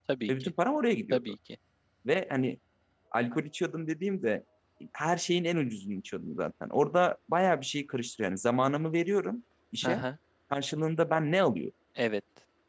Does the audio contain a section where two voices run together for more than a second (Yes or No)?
No